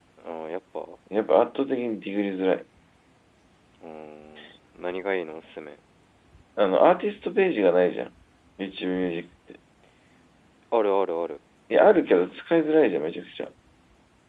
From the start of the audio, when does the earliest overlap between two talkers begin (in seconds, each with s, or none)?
none